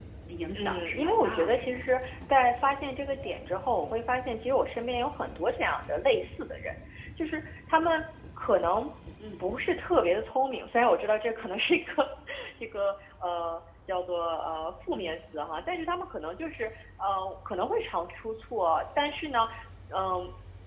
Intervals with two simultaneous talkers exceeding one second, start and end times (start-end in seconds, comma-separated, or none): 0.6-1.8